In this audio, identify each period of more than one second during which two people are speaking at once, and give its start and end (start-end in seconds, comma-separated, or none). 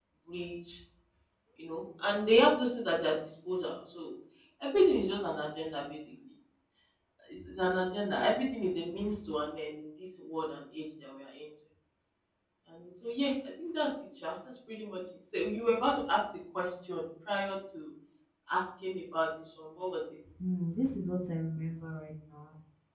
none